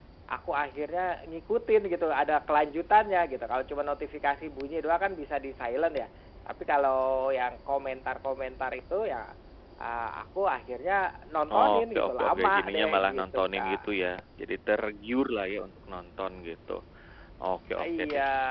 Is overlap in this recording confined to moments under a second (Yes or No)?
No